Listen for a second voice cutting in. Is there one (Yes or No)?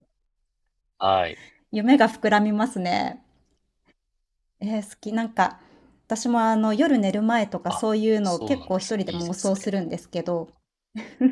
Yes